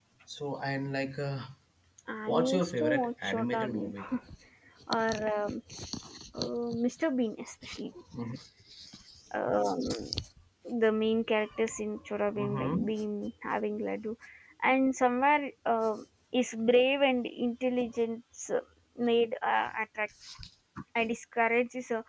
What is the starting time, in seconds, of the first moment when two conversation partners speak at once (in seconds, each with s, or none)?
2.3 s